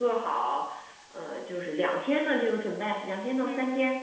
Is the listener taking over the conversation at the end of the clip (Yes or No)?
Yes